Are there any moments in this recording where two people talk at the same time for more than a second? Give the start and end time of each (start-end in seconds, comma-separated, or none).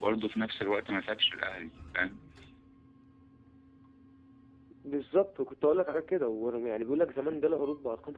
none